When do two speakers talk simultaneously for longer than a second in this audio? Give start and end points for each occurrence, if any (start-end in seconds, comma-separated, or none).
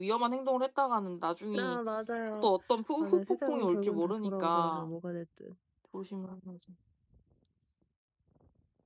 3.0-4.9